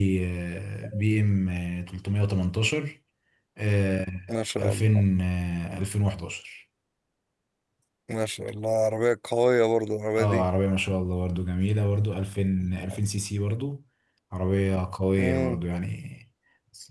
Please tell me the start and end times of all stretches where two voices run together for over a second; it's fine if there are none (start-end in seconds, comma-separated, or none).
none